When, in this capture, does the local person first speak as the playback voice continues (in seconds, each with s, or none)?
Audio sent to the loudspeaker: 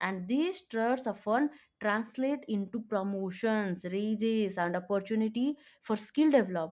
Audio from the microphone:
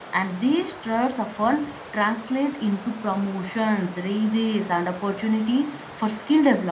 none